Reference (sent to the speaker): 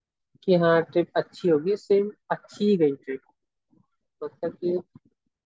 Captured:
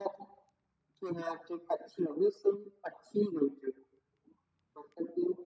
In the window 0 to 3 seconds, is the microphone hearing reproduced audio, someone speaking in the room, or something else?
echo only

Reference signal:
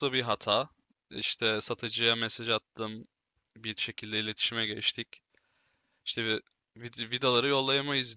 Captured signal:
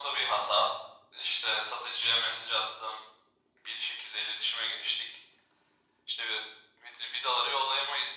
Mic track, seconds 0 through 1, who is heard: echo only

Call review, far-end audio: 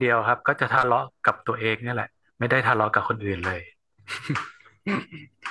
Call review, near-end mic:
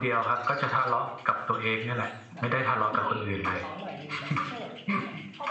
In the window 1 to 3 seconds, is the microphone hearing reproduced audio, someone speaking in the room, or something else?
both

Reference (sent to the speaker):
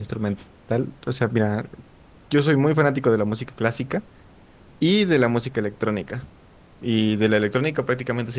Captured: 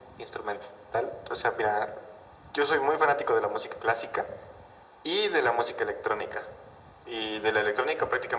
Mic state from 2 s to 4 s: echo only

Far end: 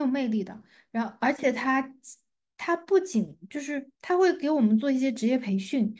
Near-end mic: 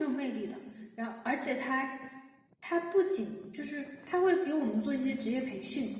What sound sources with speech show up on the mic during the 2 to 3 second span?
echo only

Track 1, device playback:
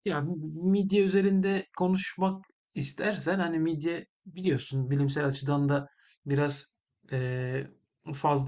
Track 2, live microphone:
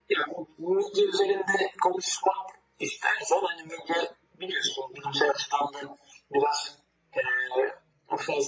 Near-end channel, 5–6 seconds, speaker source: echo only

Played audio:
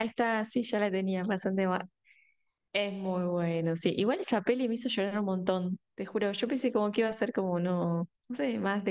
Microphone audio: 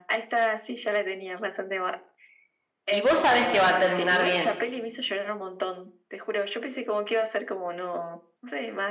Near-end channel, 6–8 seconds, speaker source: echo only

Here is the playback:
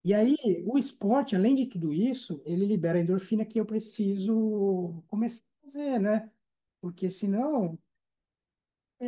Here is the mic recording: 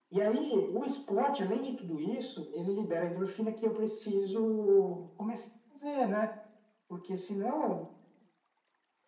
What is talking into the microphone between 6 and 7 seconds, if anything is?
echo only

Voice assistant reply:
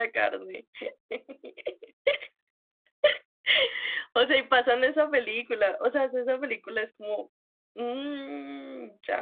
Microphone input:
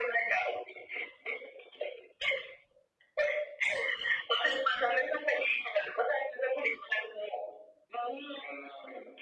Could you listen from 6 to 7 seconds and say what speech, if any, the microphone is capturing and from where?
echo only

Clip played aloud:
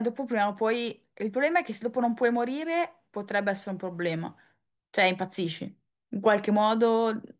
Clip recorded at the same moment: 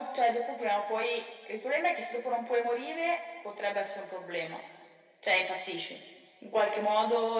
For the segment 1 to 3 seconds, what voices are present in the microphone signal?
echo only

